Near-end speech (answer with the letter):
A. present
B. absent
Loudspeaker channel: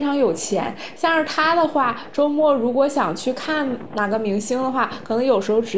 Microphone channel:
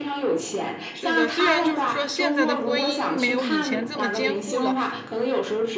A